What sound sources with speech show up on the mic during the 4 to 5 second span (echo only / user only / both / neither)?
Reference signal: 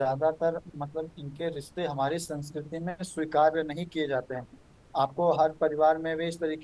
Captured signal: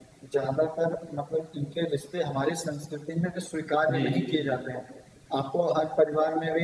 both